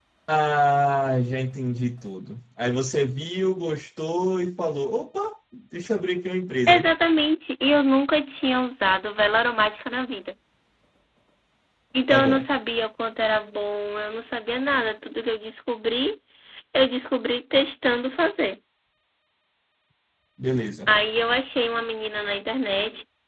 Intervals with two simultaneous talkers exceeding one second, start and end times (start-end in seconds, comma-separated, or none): none